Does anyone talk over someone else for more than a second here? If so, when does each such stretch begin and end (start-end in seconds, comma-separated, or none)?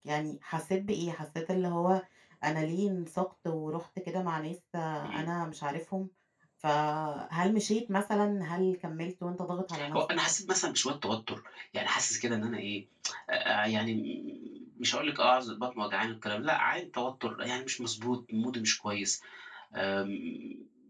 none